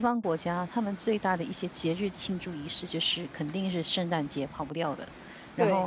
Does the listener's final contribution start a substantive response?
No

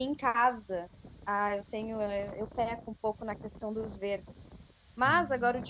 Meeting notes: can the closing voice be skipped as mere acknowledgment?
Yes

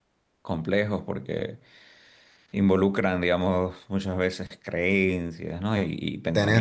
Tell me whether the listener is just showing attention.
Yes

